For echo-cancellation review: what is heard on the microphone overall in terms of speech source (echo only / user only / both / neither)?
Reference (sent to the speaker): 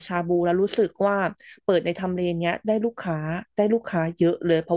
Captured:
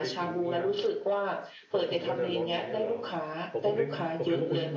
both